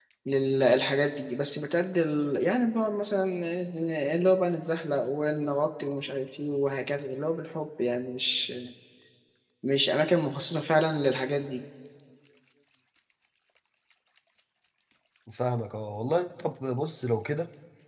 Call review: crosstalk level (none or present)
none